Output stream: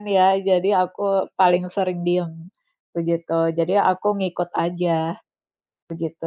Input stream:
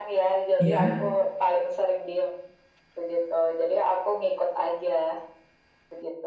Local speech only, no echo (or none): iya,